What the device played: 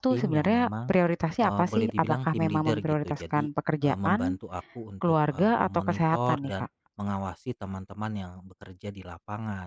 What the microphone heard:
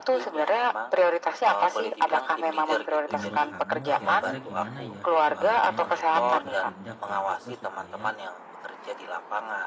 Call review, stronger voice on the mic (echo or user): echo